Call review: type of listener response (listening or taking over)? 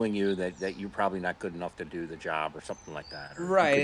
taking over